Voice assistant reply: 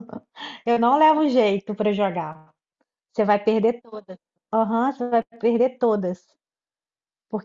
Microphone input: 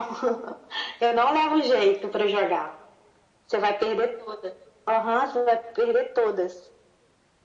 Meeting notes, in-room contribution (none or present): none